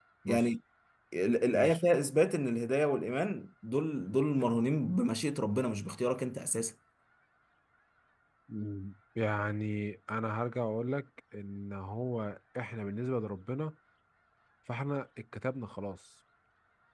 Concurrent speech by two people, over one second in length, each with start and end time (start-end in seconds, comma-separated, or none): none